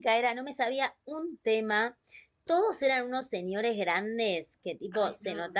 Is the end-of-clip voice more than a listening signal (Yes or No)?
No